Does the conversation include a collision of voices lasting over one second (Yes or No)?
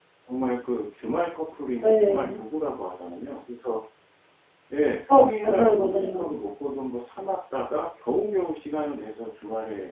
Yes